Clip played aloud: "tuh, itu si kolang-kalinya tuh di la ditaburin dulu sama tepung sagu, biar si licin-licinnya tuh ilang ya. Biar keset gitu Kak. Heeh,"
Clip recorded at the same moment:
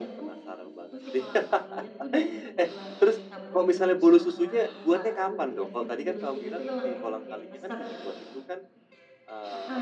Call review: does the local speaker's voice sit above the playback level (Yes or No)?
Yes